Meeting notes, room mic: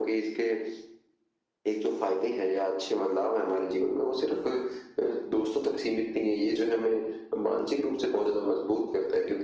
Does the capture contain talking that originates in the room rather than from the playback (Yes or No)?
No